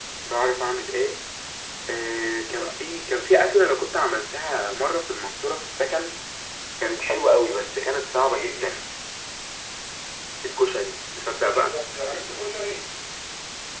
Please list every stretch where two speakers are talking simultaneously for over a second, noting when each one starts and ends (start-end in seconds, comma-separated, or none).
none